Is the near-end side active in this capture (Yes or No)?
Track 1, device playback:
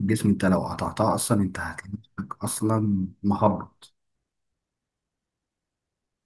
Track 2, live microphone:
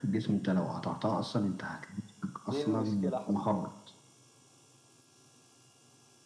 Yes